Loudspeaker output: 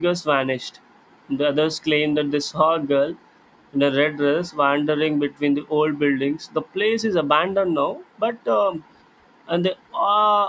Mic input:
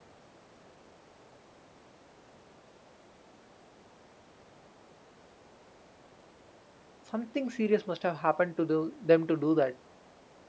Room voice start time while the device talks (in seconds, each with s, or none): 7.0 s